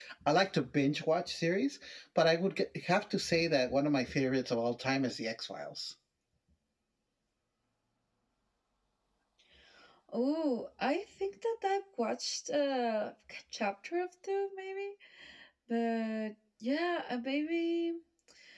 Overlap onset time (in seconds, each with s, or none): none